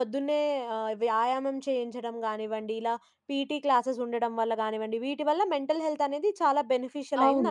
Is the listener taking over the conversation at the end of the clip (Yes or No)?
Yes